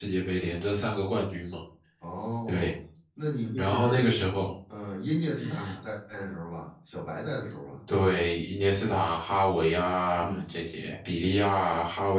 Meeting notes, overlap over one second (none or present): none